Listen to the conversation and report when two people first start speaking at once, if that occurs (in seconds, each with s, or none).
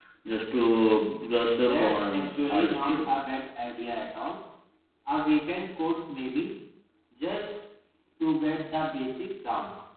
1.6 s